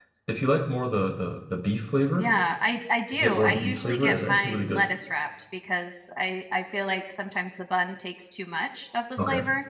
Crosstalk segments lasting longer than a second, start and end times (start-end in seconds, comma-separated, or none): 3.1-4.8